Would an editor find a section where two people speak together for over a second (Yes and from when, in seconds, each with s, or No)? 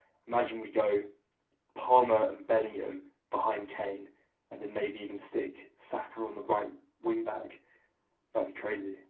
No